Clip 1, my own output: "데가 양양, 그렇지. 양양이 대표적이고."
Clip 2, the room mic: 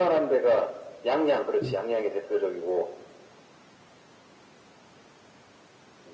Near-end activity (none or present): present